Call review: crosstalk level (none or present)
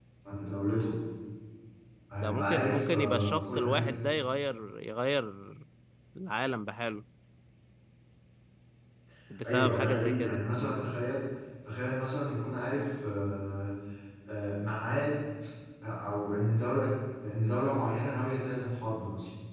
present